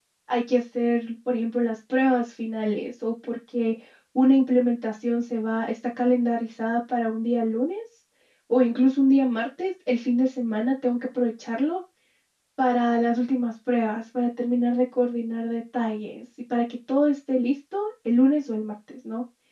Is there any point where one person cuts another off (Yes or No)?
No